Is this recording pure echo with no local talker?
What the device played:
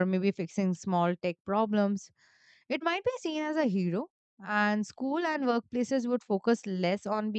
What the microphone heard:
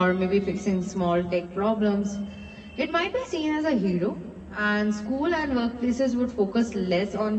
Yes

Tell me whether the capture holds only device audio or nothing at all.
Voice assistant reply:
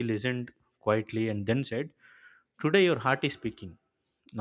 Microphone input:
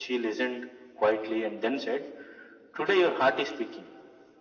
Yes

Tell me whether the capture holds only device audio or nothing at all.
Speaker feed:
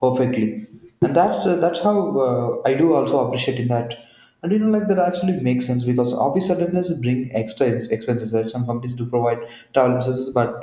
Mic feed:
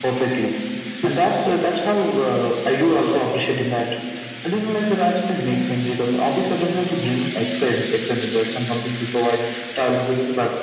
Yes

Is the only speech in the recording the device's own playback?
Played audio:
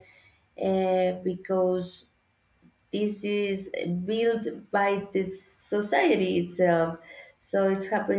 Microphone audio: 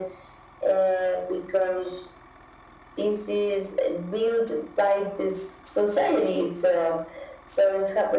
Yes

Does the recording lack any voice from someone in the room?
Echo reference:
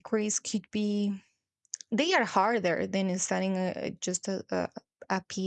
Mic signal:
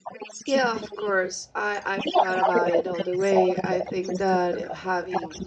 No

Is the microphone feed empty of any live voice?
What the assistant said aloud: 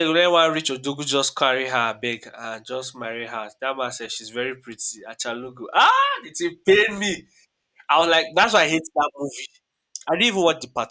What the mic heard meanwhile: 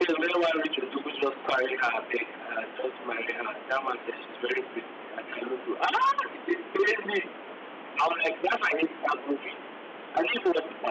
Yes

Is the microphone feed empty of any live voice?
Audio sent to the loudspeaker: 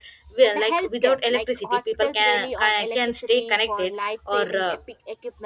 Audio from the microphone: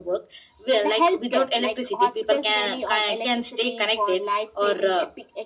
Yes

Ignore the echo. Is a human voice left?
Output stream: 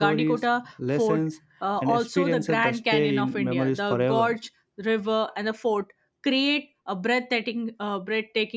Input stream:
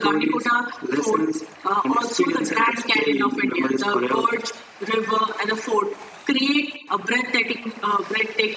No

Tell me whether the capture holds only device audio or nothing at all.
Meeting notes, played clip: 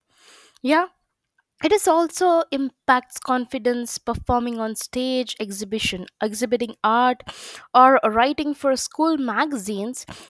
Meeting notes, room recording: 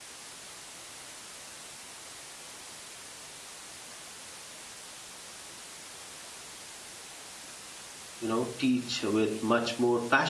No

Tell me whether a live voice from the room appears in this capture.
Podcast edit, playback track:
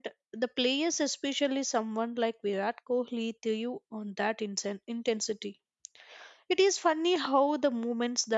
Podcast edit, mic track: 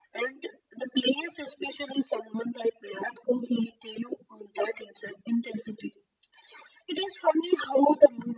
No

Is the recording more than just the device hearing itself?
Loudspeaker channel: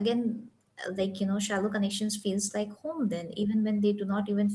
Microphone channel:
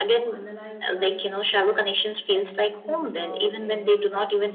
Yes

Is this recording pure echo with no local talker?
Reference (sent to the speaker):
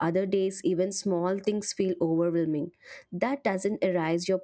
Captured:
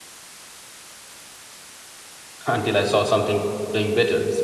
No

